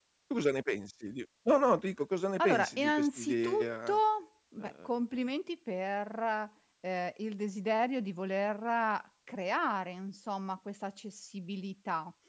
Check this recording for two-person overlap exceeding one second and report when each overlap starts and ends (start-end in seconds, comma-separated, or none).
2.4-4.0